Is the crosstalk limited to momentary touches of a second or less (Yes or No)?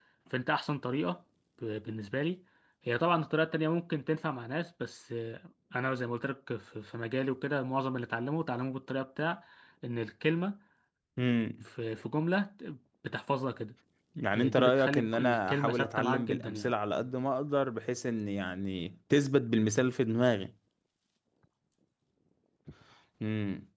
No